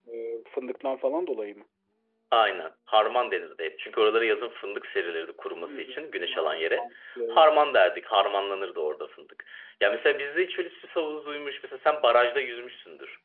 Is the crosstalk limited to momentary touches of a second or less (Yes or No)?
No